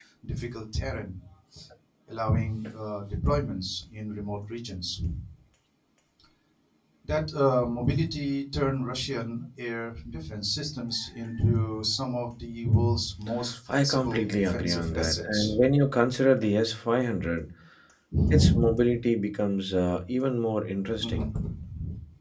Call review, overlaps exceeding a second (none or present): present